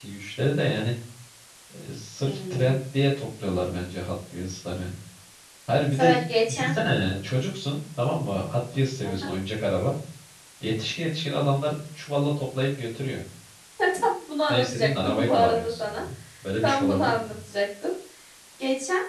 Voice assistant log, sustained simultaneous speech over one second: present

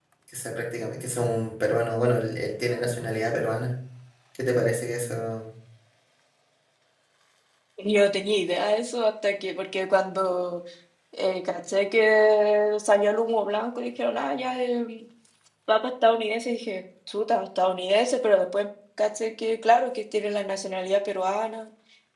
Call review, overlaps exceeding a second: none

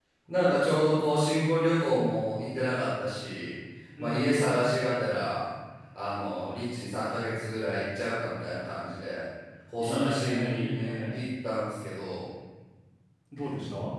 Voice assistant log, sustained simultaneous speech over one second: present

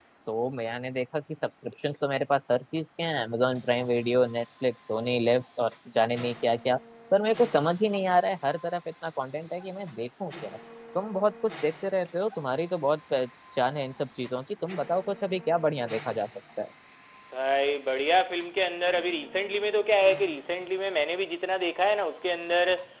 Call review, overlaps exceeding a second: none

